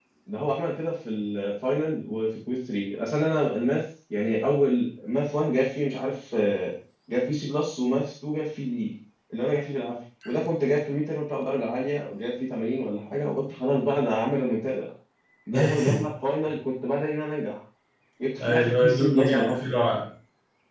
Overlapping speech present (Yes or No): Yes